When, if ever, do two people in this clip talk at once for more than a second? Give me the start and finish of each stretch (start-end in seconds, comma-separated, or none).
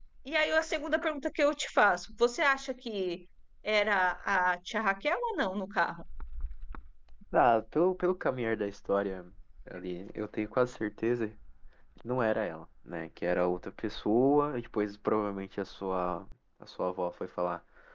none